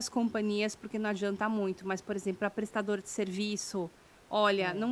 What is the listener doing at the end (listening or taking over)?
listening